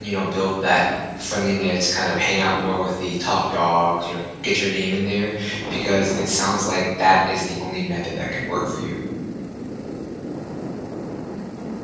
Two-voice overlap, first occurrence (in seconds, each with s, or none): none